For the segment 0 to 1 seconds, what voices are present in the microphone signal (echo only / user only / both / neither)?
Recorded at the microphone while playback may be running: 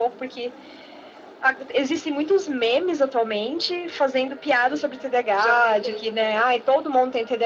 echo only